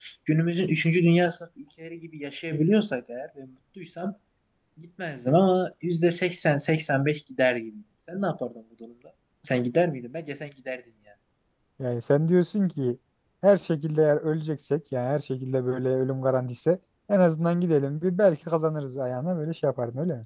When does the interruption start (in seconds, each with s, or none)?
none